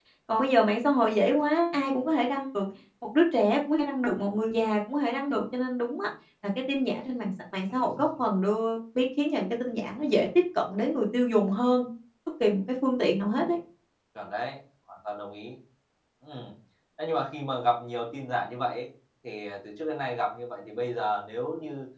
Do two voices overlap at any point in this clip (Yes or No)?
No